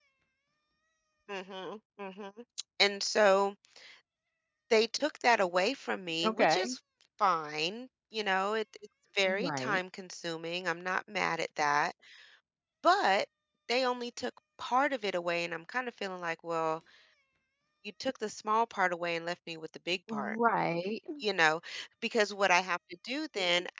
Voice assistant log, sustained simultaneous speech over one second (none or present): none